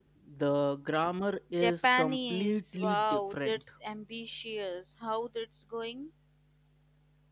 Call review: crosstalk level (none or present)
present